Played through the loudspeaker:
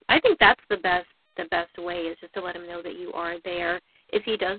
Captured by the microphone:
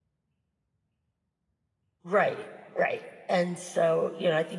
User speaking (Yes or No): Yes